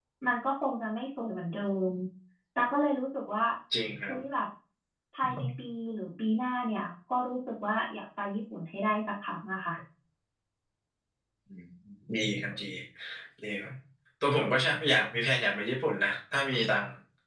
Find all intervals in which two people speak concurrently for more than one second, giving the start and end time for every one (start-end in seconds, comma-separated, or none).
none